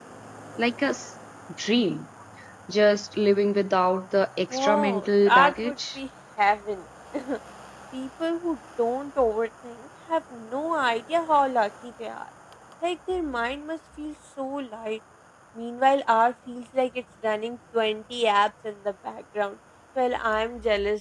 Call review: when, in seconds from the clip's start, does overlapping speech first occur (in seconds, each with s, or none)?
4.5 s